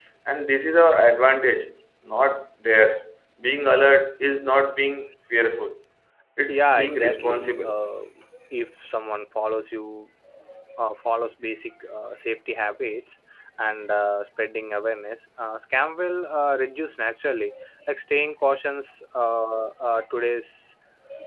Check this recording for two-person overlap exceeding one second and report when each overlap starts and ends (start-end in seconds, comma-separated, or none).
6.5-7.7